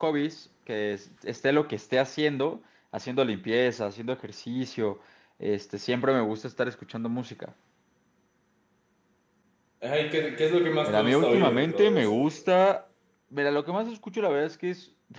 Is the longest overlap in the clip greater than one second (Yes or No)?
Yes